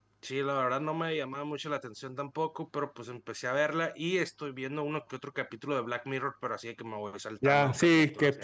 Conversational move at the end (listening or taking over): taking over